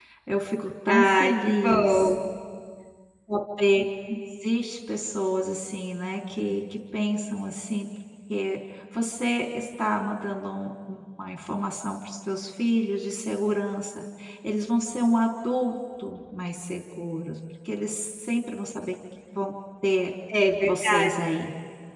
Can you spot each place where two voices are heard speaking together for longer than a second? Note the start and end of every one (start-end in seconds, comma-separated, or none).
0.9-2.1